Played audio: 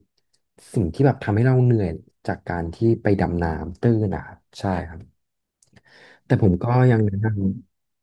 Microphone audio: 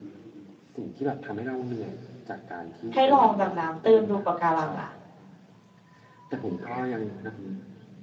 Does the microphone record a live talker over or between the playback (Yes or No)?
Yes